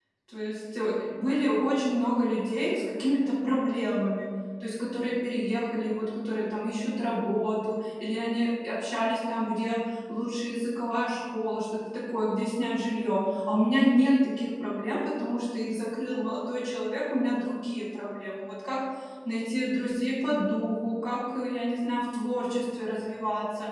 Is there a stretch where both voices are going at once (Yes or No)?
No